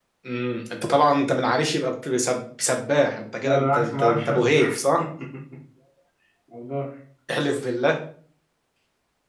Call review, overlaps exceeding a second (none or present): present